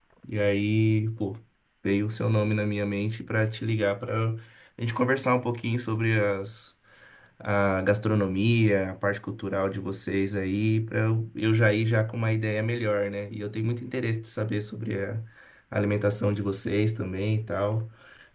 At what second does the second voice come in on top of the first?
none

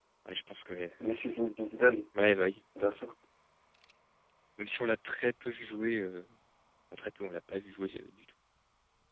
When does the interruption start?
none

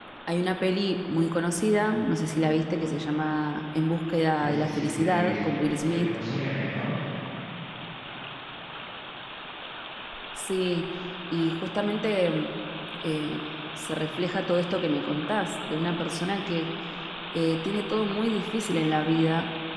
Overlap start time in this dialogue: 4 s

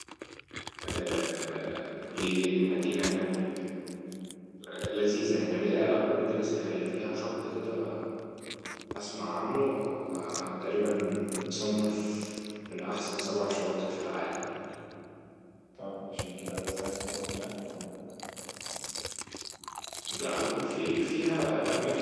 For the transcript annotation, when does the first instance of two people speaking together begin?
none

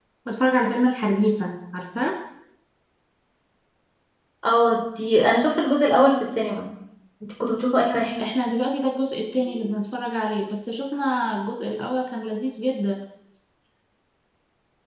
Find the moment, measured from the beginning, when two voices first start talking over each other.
none

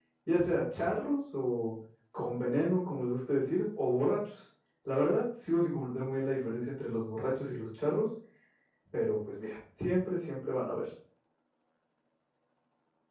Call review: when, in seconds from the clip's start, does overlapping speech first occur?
none

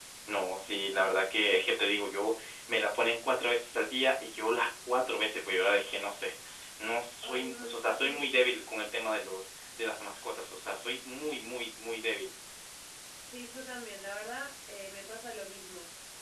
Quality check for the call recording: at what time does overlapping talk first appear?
7 s

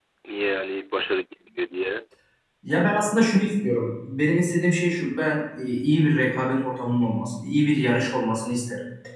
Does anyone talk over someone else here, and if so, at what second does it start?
none

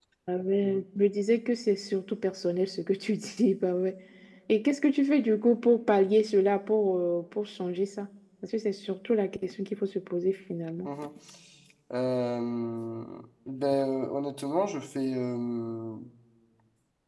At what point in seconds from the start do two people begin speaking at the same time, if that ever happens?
none

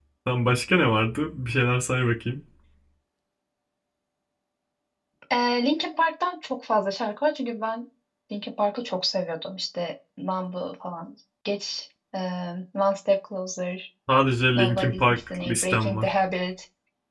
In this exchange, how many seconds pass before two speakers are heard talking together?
15 s

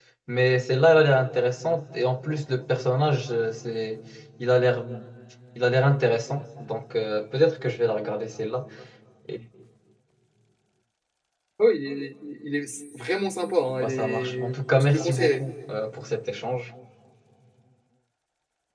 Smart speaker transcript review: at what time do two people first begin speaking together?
14 s

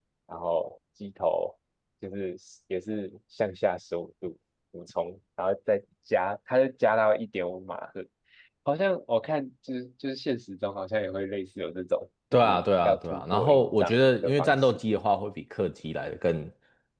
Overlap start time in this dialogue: 12 s

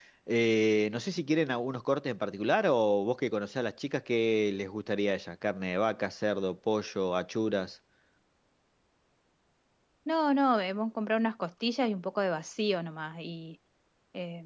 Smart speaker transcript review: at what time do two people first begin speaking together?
none

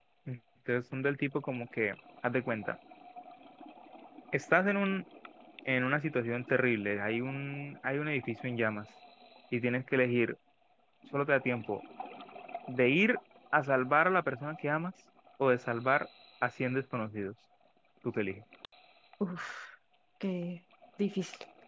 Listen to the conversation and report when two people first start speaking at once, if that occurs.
none

